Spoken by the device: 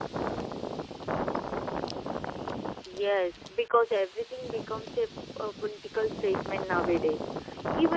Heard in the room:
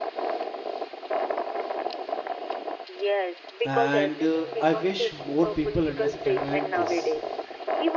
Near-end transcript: And uh, I wish more people understand this.

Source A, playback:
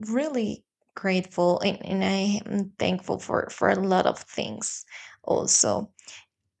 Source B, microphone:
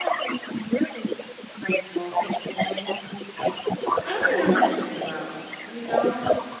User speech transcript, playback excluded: I am as well, you know.

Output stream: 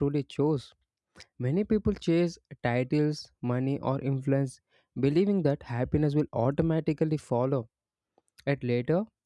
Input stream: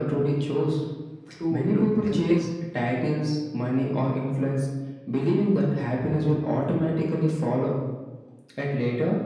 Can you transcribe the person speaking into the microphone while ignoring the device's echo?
to look tempting,

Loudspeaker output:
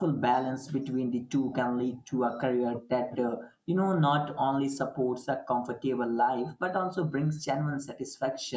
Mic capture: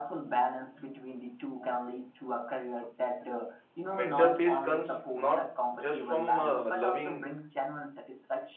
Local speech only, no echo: mental peace comes not just from uh, loving

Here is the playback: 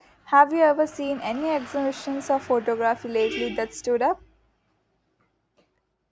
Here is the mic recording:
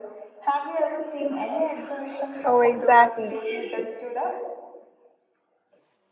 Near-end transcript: Oh, exactly.

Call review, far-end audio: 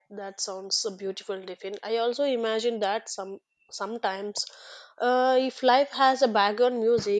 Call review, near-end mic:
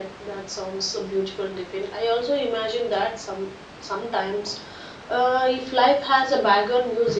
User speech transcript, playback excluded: none

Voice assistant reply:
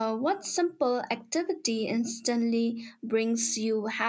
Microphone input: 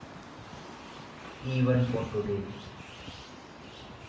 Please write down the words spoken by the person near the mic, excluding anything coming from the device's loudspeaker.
even for today.

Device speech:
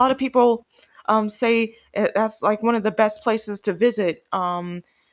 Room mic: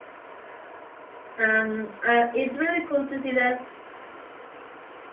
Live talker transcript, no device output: Um, uh, it's really cool to see that

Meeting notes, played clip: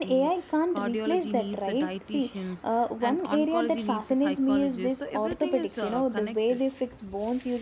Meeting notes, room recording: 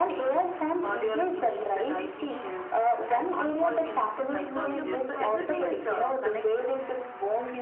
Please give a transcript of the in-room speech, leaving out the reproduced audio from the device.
so humans might decide.

